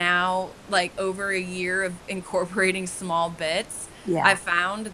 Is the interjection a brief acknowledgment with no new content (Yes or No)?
Yes